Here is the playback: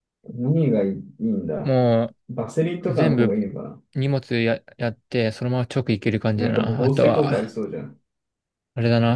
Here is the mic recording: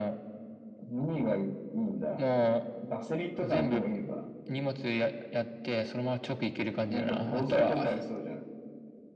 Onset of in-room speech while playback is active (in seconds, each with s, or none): none